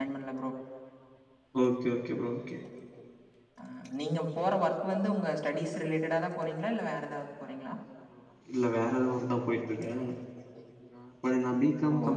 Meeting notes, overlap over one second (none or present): none